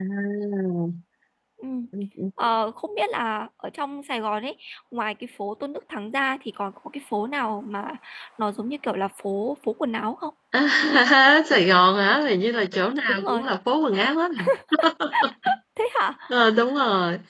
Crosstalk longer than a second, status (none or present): none